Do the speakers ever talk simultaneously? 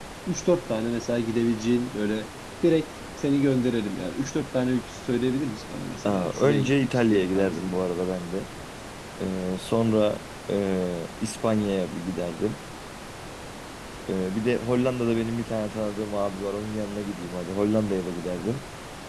Yes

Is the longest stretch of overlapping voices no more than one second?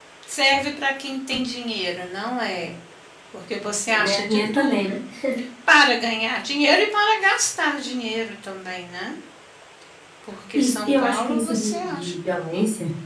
No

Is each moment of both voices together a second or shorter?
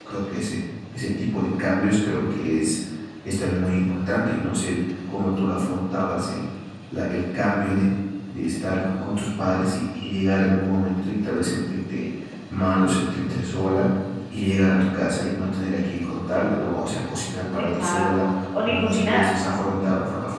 No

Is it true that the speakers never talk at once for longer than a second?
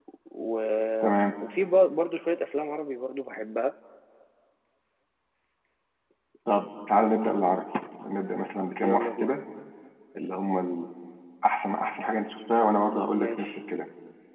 Yes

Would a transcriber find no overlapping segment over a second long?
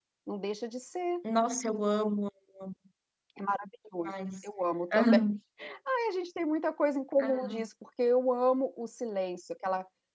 Yes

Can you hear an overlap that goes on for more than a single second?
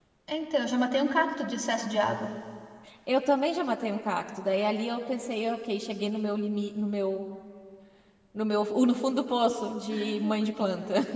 No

